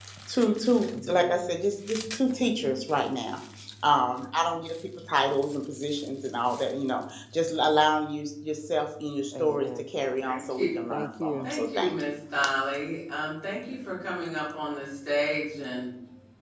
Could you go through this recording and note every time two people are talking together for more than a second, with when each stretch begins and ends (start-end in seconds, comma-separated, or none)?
10.3-11.9